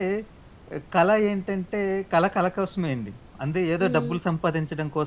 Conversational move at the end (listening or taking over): listening